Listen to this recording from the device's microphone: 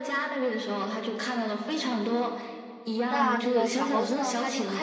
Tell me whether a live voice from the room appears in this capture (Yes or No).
Yes